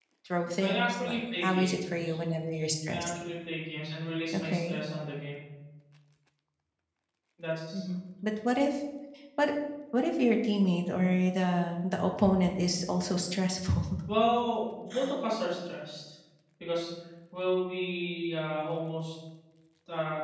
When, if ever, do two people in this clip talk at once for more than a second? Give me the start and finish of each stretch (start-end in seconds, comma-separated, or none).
0.6-1.8